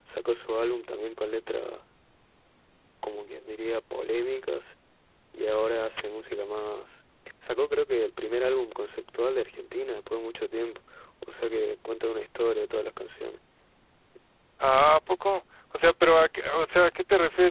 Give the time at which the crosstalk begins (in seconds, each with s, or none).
none